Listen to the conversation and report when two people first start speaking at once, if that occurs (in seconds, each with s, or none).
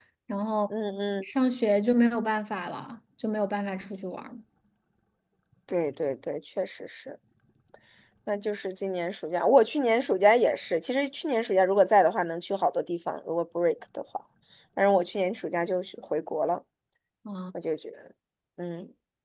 none